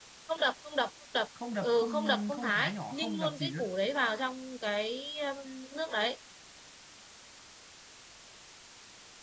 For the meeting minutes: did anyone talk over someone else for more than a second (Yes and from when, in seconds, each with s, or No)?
Yes, from 1.6 s